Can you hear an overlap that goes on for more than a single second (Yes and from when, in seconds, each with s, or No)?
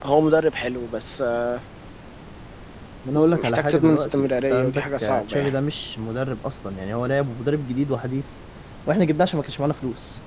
Yes, from 3.2 s